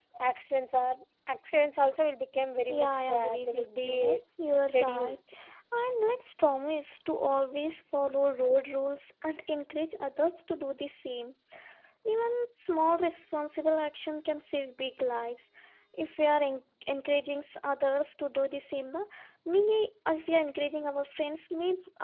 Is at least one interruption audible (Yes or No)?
Yes